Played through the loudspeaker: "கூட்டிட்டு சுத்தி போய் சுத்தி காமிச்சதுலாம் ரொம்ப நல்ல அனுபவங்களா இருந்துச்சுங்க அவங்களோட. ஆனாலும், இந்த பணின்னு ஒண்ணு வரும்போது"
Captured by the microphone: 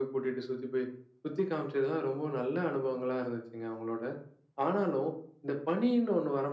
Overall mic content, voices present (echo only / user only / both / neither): echo only